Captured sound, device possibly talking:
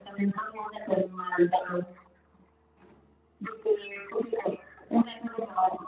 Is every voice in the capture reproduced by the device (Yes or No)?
Yes